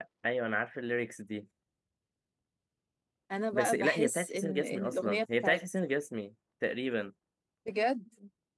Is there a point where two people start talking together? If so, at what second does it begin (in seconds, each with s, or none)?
3.5 s